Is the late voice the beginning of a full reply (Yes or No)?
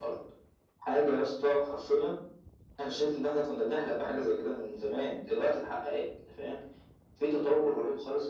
No